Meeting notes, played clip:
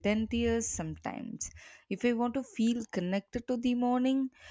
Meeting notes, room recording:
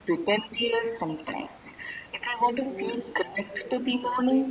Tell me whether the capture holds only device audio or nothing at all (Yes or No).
No